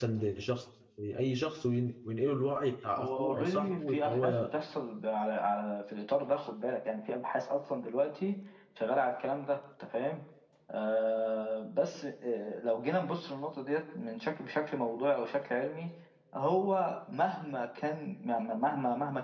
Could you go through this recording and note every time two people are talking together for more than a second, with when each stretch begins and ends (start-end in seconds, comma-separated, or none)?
3.0-4.5